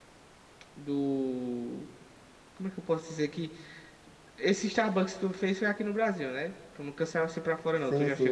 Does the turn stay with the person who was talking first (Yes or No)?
No